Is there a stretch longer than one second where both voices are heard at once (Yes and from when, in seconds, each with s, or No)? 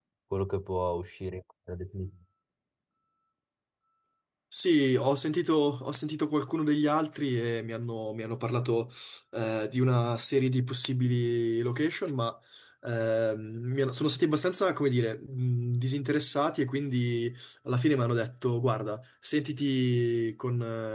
No